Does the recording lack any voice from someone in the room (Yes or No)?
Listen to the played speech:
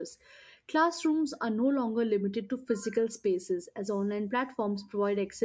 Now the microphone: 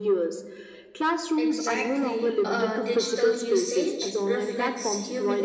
No